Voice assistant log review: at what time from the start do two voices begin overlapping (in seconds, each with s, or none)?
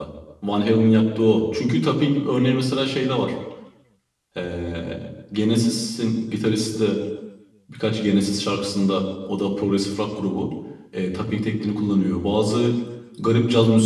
none